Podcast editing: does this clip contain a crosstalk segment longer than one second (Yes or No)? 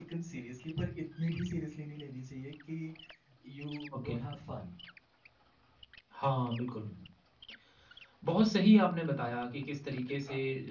No